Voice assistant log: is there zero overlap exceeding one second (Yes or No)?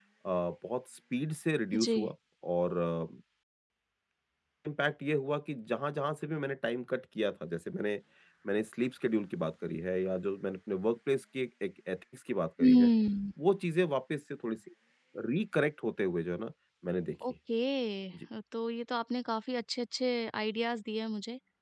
Yes